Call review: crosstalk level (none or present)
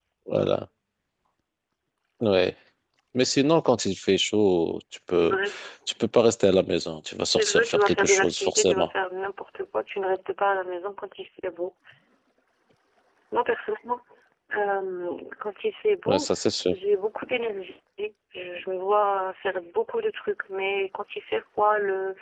present